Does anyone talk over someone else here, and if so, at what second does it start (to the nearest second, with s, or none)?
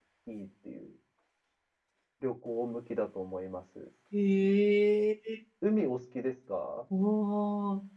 none